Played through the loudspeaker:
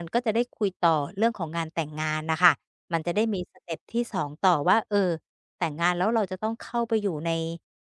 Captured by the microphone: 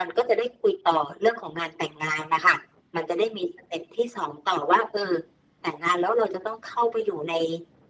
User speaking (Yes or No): No